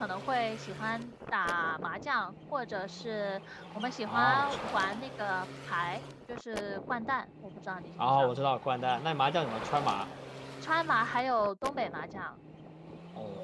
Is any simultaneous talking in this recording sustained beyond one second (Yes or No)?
No